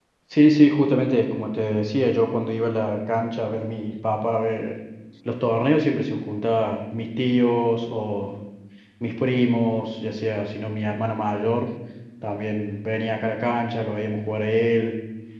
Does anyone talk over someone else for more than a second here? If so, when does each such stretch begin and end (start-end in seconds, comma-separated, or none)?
none